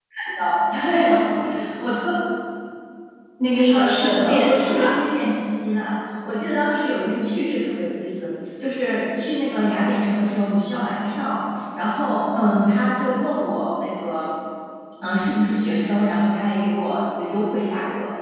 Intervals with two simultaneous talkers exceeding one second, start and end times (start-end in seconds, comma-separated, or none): 3.7-5.0